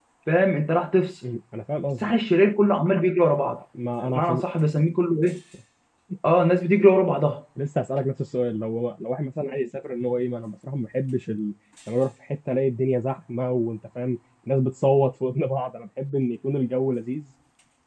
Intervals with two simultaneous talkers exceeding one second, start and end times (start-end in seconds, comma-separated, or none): none